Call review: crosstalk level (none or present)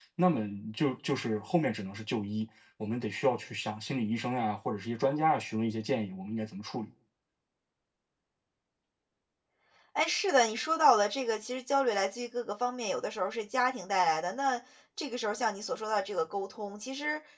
none